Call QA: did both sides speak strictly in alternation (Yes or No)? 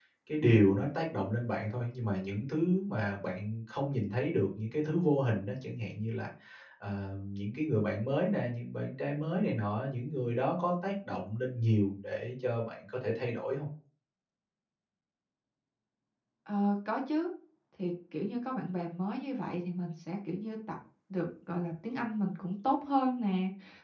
Yes